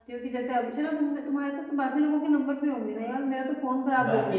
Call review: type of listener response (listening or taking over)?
taking over